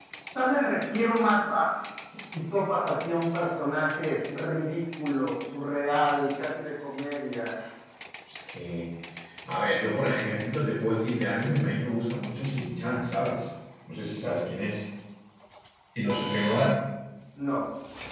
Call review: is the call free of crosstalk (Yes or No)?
Yes